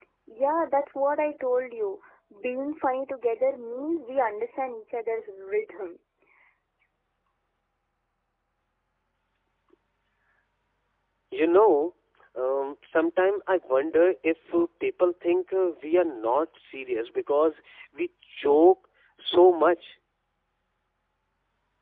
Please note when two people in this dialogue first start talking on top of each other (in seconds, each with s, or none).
none